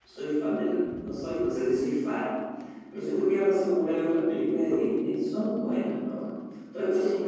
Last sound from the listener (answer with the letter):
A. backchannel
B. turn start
A